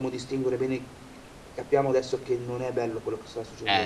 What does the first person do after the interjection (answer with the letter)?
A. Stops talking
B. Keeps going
A